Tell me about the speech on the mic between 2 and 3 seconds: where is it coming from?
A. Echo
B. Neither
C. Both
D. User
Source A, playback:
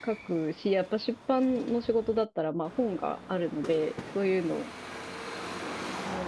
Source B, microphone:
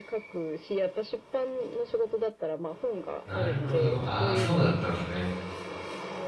A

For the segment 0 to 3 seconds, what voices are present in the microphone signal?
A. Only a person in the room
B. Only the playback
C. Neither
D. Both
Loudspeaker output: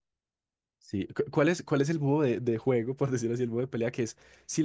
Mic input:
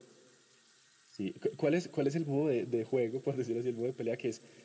B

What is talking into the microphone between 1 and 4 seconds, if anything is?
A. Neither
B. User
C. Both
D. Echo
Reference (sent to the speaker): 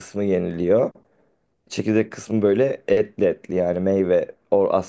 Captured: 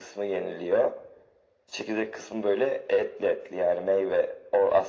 D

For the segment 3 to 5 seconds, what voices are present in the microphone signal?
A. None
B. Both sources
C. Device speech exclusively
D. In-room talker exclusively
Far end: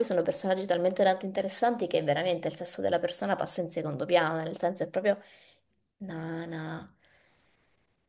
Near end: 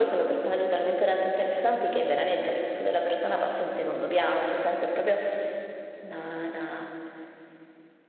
C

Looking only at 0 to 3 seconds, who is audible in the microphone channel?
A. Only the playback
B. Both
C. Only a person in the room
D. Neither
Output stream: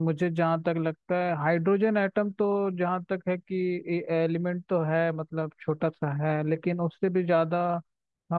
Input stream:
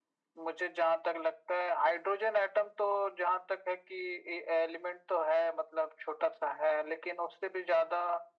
A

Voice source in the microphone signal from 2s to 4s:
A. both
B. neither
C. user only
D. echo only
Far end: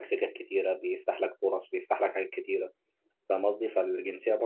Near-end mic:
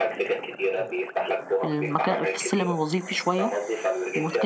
A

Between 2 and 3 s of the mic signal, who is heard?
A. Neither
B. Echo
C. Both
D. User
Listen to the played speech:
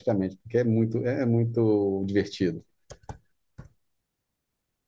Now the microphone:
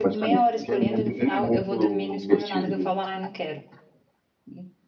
C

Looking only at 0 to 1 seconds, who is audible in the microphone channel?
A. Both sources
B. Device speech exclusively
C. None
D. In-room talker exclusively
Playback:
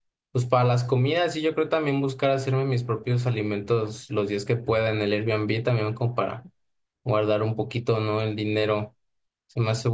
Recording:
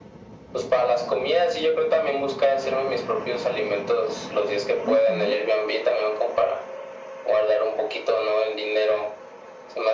B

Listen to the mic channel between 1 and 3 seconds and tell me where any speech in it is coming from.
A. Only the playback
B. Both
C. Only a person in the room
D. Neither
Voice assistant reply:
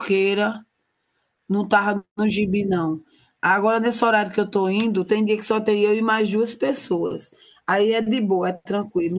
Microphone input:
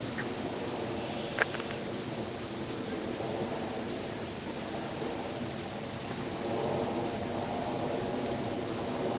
D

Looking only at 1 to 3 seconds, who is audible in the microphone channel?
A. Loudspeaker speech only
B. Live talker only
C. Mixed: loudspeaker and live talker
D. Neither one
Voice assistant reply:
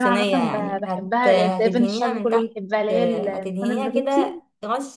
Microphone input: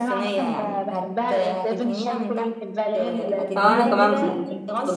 A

